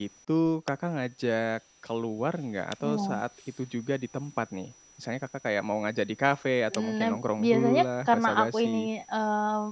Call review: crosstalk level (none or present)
present